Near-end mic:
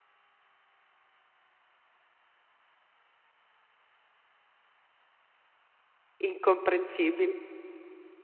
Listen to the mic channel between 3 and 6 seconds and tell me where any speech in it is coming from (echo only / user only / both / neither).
neither